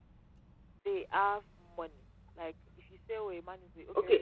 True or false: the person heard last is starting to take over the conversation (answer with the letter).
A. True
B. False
A